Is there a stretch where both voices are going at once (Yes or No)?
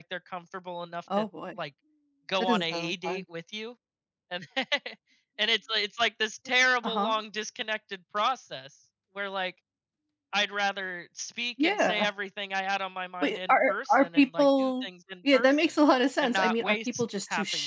Yes